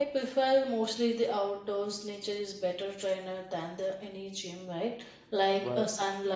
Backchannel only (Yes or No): Yes